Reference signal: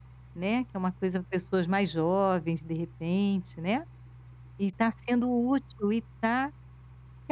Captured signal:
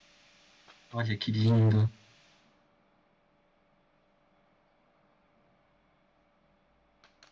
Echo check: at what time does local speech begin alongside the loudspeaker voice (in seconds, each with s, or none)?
0.9 s